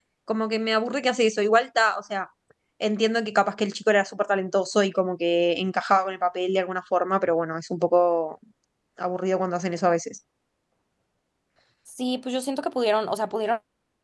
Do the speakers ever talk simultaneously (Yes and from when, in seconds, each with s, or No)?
No